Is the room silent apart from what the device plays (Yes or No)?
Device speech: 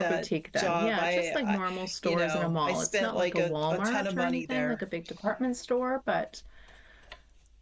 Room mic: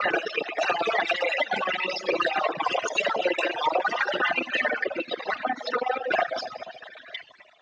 Yes